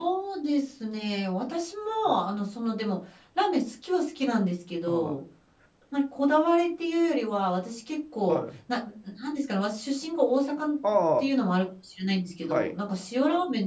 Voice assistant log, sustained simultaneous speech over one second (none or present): none